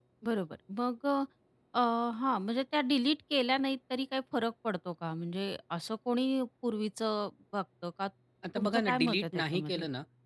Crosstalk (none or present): present